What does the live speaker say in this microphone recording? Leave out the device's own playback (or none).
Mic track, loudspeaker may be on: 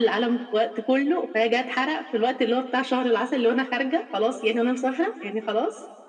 none